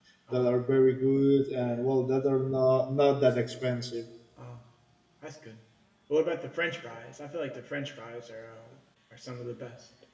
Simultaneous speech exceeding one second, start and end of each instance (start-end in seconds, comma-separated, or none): none